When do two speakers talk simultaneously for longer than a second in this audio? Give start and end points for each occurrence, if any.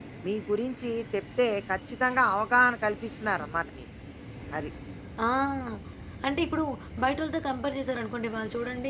none

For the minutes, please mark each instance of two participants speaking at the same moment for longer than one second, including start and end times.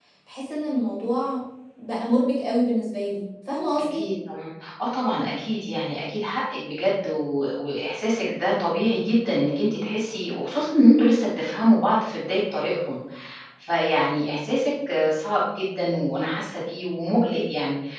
none

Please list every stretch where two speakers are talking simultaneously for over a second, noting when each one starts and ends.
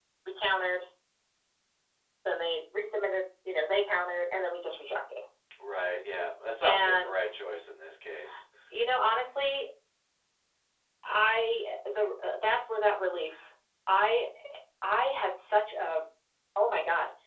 none

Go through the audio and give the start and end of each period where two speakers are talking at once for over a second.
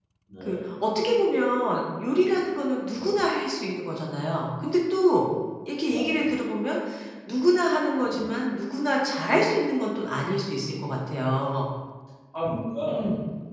none

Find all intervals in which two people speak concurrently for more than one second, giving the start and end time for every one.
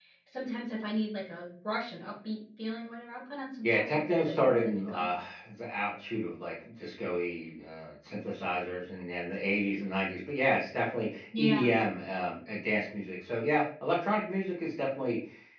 3.6-5.2

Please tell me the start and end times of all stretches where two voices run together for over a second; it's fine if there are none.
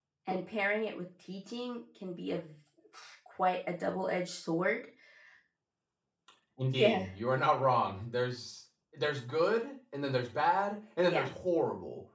none

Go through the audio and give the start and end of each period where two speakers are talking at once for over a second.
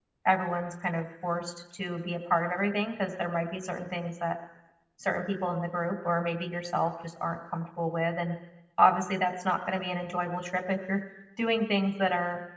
none

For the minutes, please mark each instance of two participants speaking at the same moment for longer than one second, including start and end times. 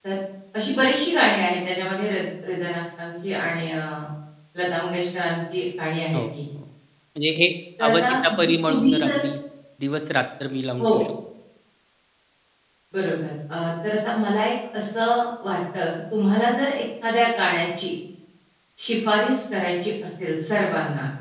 7.9-9.2

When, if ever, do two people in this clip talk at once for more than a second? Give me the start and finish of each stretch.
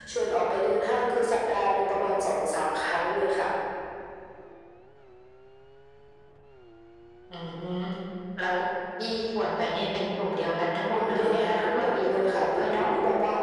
11.0-12.9

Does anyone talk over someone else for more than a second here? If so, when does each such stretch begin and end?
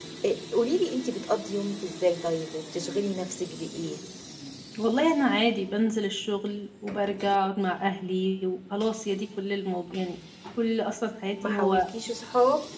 none

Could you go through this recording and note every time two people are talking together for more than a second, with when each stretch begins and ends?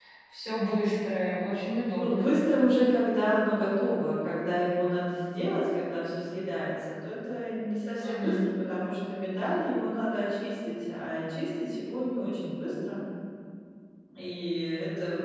none

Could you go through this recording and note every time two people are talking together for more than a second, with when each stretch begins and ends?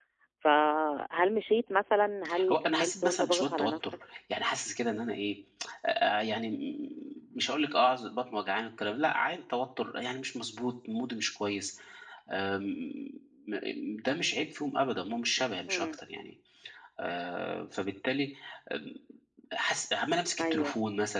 2.5-3.9

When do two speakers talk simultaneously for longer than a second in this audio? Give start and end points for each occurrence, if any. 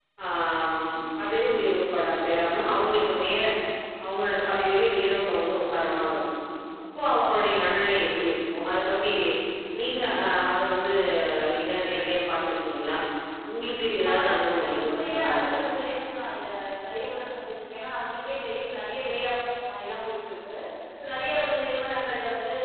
14.1-15.4

